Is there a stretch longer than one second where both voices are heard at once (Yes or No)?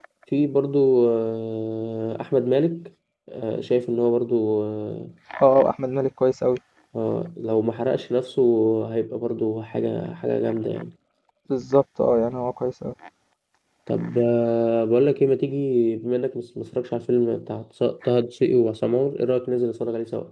No